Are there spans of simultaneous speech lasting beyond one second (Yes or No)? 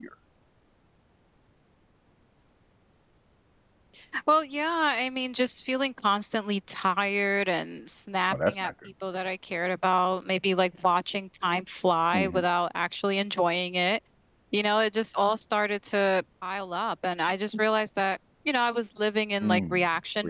No